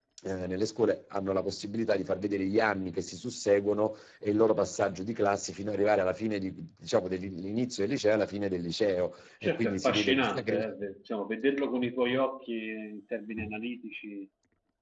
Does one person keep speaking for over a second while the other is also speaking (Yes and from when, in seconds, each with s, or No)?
Yes, from 9.4 s